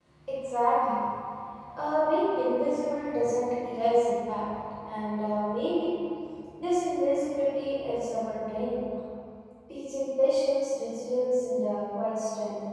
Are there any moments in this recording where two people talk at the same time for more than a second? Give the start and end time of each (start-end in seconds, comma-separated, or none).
none